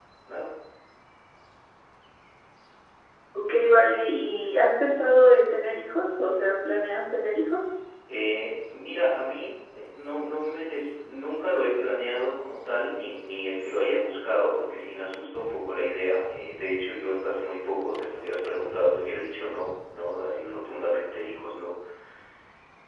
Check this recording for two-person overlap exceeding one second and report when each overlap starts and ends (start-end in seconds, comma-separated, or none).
none